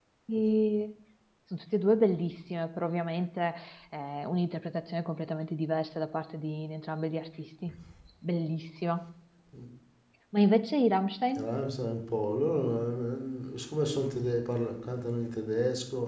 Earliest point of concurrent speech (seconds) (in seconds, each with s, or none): none